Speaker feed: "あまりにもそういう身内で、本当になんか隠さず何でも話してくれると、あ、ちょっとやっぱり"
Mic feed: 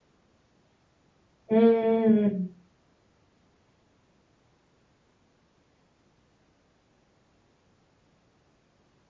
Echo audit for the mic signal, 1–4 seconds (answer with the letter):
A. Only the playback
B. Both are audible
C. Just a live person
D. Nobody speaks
C